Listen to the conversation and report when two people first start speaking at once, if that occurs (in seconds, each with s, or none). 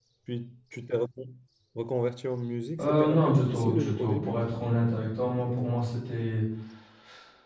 2.8 s